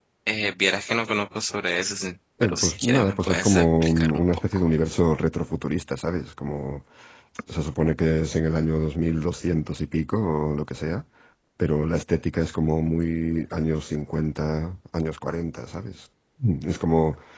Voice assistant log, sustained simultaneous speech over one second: present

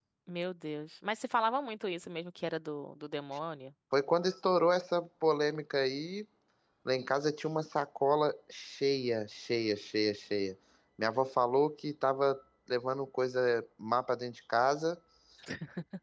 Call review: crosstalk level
none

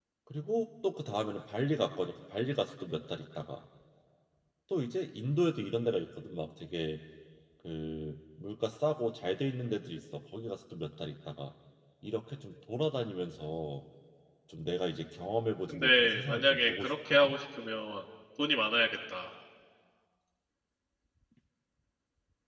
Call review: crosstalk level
present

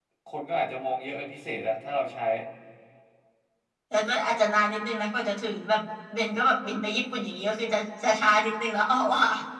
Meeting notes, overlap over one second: none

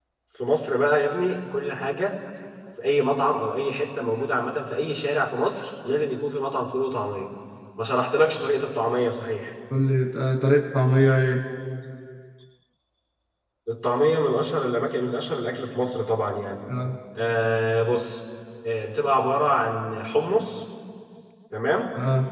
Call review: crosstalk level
none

